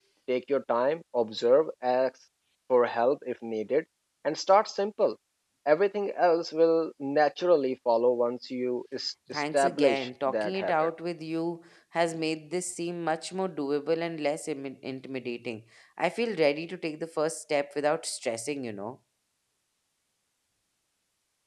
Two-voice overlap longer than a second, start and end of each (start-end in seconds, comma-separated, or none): 9.3-10.9